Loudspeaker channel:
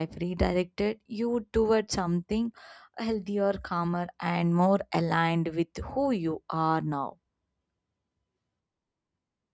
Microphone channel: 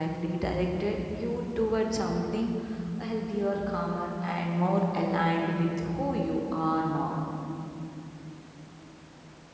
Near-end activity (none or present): none